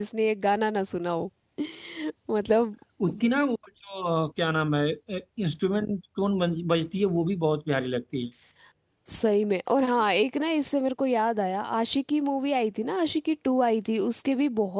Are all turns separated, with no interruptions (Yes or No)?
Yes